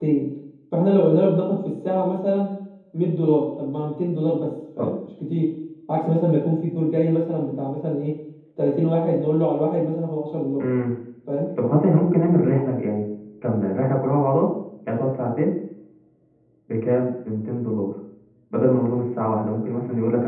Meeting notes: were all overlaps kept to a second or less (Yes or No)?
Yes